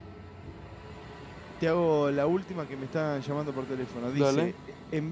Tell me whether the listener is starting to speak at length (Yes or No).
No